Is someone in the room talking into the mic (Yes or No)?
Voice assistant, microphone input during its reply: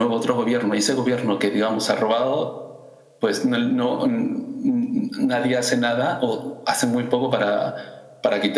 No